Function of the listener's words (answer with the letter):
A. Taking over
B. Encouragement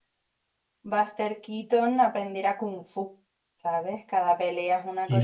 A